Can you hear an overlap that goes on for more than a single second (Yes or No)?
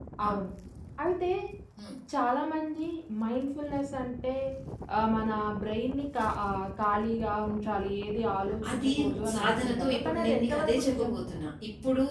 Yes